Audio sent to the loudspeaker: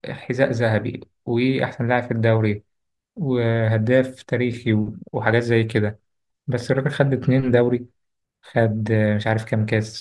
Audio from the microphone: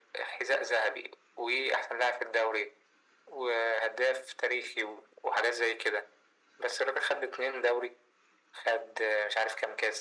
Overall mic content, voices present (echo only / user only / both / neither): echo only